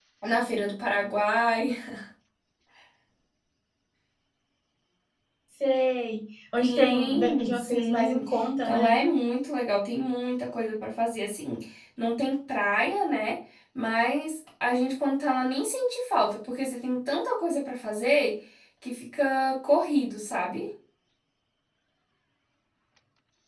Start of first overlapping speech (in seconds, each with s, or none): 6.6 s